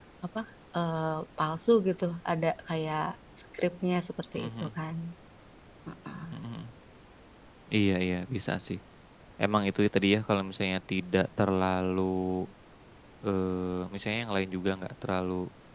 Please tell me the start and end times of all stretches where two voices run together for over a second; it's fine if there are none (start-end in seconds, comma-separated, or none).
none